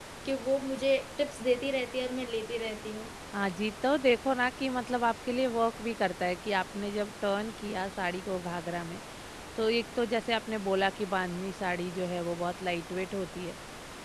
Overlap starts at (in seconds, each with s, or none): none